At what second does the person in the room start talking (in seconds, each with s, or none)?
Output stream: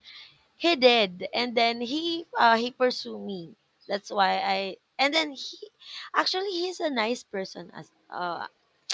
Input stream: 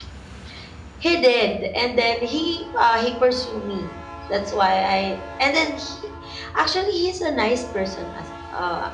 none